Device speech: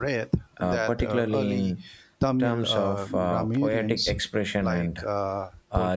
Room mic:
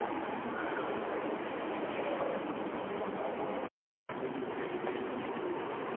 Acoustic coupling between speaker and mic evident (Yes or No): No